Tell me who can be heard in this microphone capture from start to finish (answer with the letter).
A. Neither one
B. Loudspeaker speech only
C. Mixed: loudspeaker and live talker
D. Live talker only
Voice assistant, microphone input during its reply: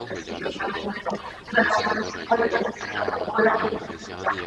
C